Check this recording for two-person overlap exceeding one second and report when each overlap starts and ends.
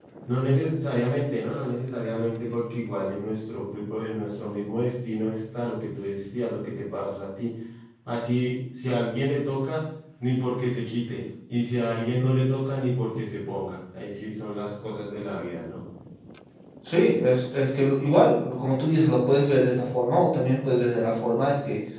none

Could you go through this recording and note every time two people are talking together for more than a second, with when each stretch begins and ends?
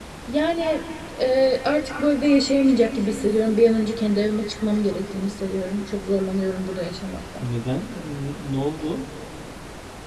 none

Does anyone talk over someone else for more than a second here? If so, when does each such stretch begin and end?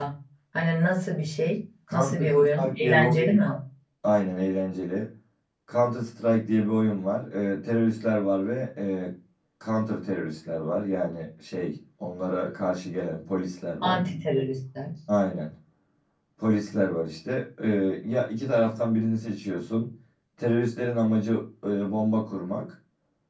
1.9-3.4

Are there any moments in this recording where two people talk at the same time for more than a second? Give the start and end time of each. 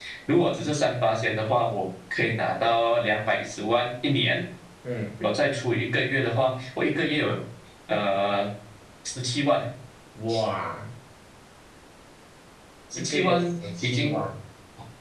12.9-14.2

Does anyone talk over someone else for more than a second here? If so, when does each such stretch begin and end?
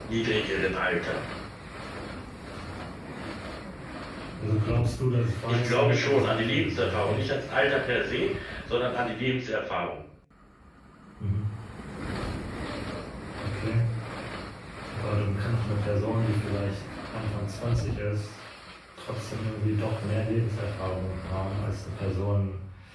5.5-7.2

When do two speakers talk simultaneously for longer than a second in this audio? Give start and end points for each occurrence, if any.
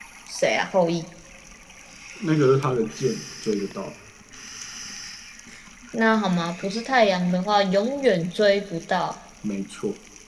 none

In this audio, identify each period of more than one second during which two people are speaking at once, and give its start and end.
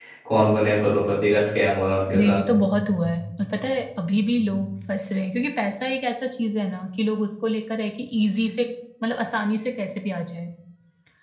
none

